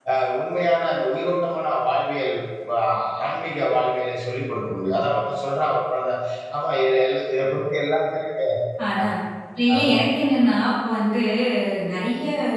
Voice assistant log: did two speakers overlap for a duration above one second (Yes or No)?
No